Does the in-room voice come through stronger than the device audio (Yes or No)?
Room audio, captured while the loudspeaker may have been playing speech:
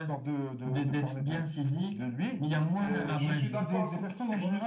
No